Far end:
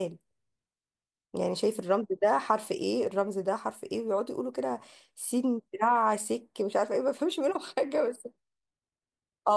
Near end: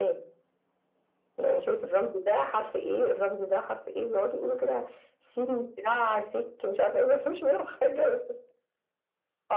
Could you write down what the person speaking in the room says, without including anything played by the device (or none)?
none